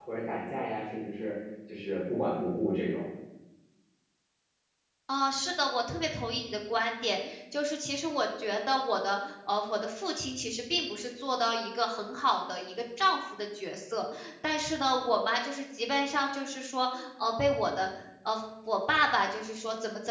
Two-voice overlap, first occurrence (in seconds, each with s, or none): none